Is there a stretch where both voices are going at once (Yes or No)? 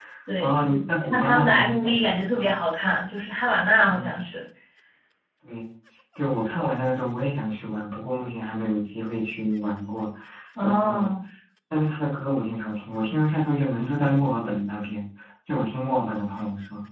Yes